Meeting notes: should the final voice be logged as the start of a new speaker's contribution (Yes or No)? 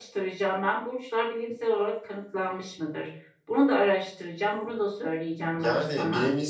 Yes